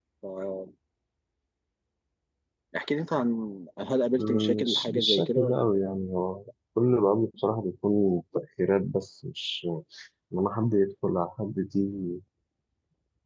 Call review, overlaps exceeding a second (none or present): present